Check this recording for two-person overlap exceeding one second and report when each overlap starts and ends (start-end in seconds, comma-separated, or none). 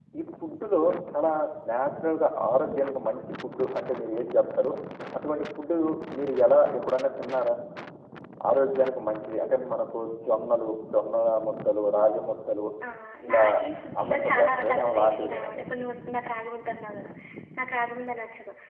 14.0-15.7